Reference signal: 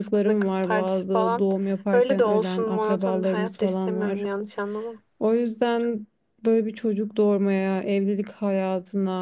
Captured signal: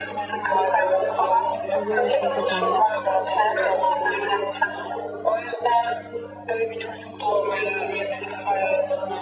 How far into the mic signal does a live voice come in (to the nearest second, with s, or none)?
2 s